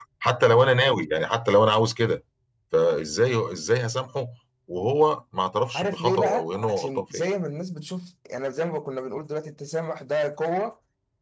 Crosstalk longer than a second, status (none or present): present